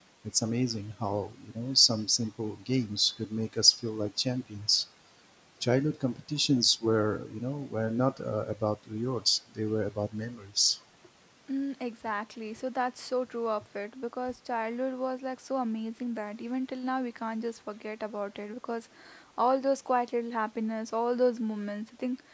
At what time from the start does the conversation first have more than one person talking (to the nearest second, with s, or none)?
none